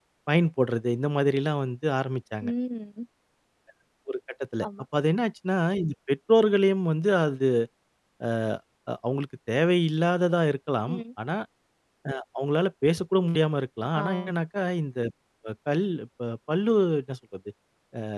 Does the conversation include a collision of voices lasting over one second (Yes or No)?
No